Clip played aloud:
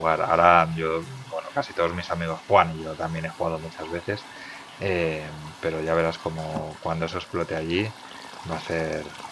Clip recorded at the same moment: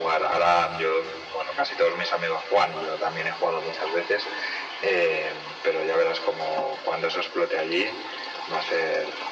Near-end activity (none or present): none